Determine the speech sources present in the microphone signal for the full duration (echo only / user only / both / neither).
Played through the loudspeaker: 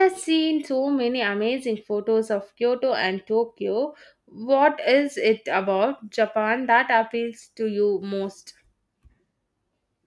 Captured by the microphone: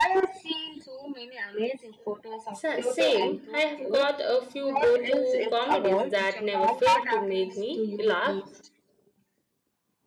both